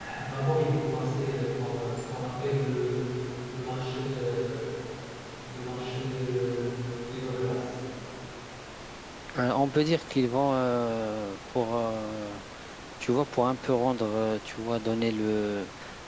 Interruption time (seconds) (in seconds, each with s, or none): none